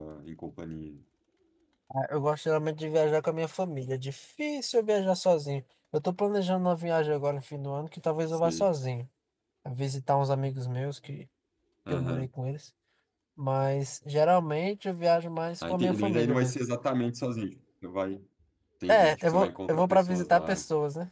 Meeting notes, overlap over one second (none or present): present